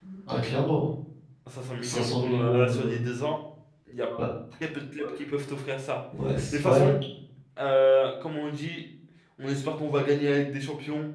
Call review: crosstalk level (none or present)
present